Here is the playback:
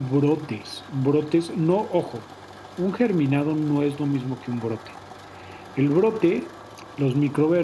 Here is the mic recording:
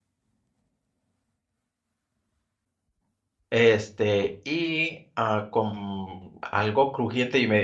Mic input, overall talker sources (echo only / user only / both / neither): user only